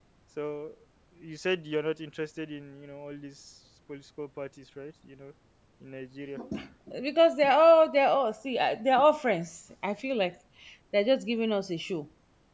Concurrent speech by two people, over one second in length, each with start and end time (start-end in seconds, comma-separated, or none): none